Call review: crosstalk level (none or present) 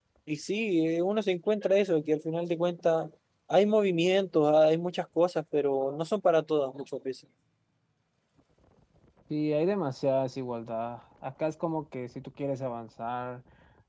none